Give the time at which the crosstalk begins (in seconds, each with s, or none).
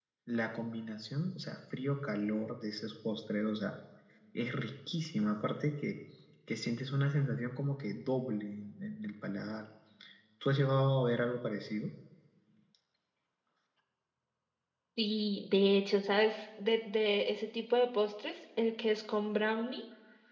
none